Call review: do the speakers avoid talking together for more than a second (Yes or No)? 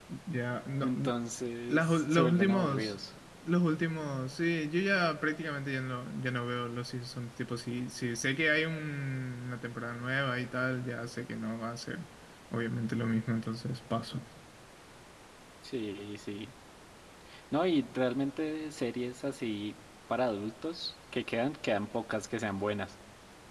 No